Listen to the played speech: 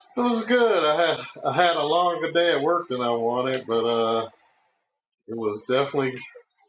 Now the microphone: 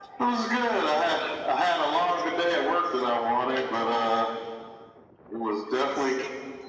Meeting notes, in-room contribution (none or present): none